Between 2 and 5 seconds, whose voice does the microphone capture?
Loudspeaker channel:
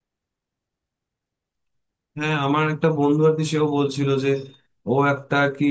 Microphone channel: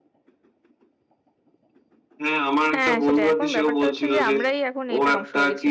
both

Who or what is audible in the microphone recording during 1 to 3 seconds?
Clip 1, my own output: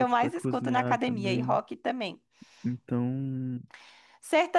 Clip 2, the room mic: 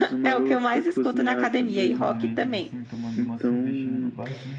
both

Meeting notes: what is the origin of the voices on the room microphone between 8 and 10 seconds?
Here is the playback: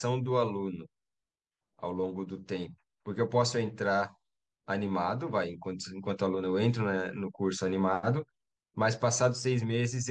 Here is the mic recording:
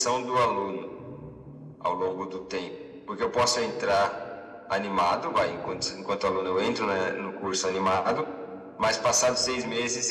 echo only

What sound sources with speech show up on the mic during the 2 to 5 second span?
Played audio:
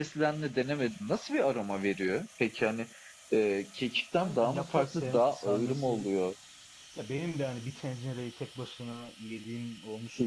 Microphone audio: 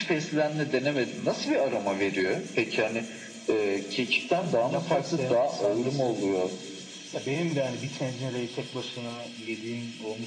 echo only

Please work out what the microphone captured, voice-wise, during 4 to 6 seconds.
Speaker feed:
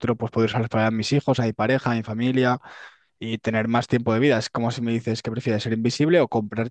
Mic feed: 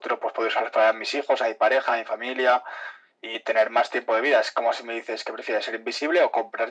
echo only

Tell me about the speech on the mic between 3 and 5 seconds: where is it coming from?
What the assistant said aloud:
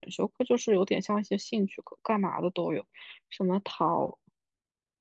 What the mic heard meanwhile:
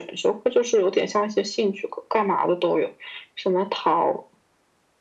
echo only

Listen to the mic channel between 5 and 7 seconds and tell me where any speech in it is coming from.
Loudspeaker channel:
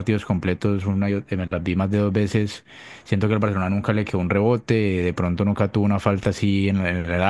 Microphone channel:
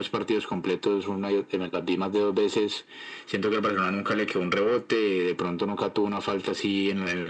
echo only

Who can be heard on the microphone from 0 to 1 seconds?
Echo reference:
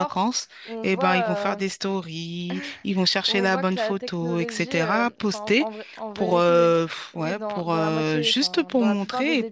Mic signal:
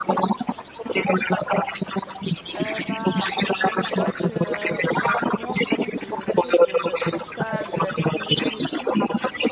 echo only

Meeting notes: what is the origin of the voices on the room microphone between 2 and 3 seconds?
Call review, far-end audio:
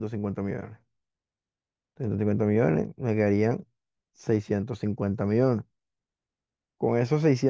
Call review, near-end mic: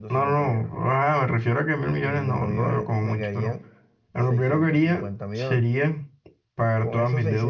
both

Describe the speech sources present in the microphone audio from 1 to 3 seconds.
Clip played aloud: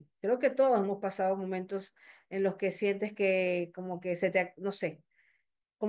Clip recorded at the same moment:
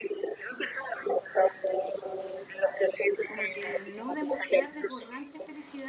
echo only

